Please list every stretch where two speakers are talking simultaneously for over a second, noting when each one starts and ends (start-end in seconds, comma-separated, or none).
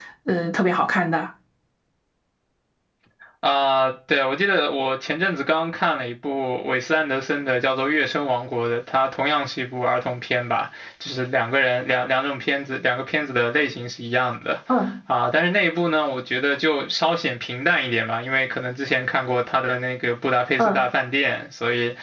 none